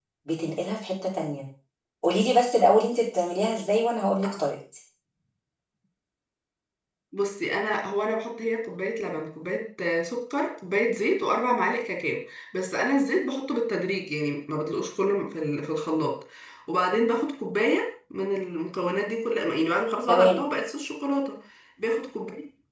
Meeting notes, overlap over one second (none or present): none